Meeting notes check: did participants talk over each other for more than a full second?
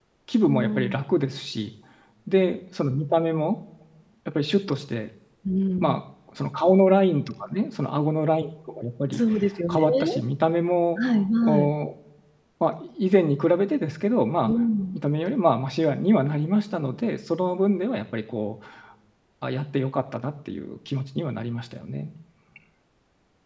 No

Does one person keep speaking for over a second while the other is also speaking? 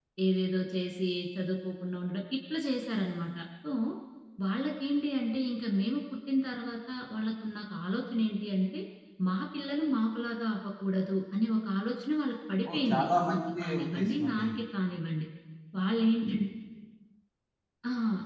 Yes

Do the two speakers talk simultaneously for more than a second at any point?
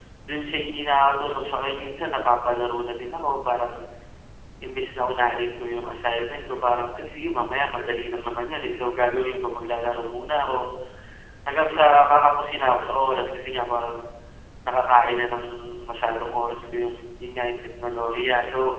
No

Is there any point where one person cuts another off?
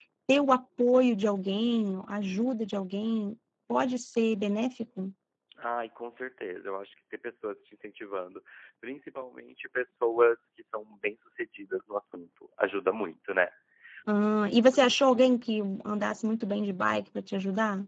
No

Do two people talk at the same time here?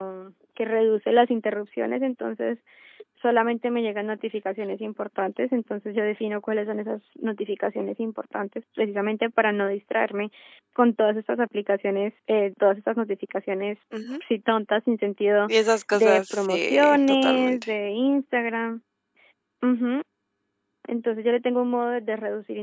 Yes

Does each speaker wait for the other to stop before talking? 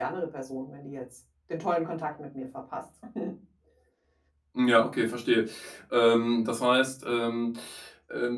Yes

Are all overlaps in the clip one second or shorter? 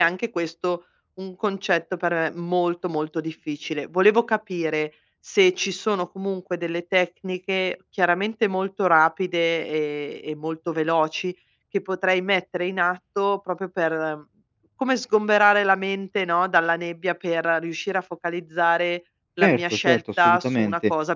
No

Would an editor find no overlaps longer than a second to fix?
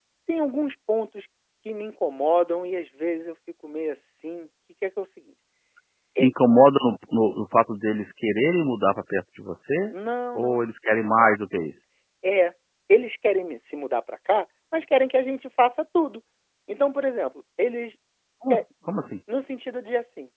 Yes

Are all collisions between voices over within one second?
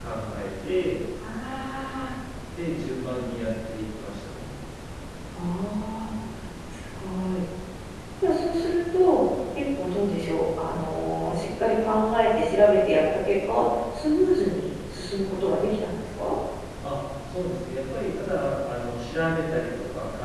Yes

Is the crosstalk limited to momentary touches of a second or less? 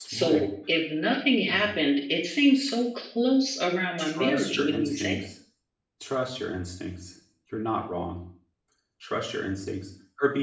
No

